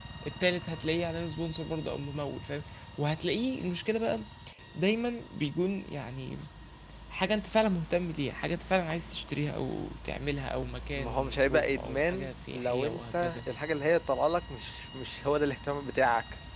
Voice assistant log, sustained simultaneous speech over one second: present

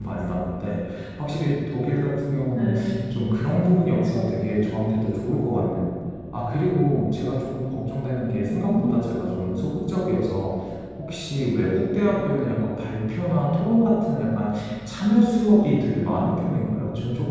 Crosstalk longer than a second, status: none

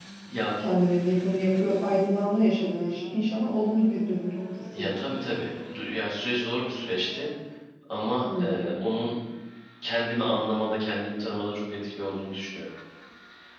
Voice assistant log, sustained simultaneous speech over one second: none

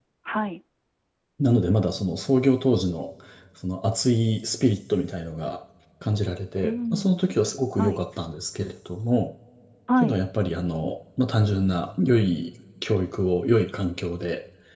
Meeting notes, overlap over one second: none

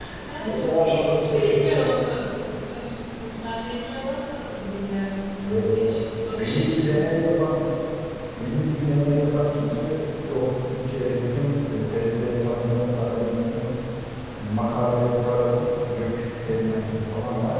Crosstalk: present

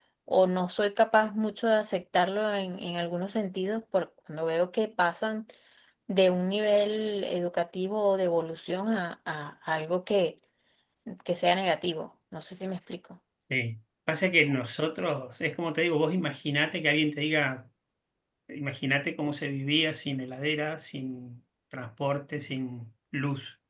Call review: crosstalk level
none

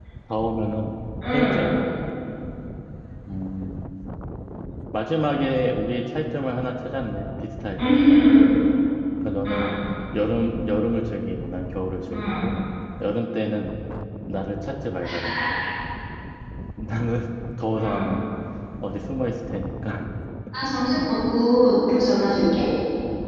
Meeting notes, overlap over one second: none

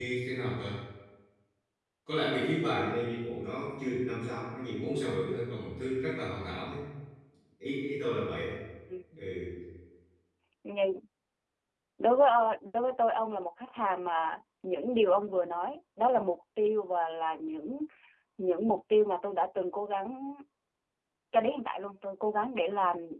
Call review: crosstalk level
none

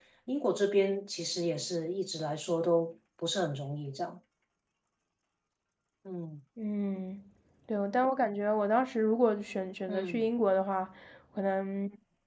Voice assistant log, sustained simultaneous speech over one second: none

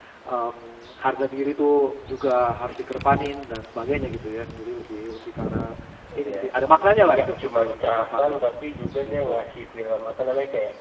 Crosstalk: present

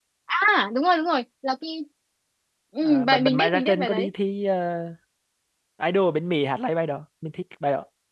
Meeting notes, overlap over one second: present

